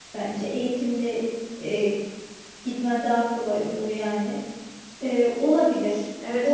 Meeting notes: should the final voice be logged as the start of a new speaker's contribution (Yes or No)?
Yes